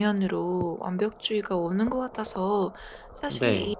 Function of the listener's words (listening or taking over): listening